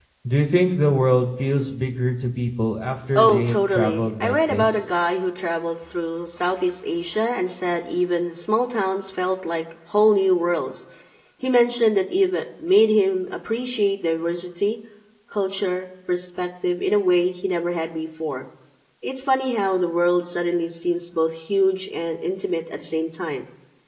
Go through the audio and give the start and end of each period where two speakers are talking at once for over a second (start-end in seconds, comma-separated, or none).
3.2-4.9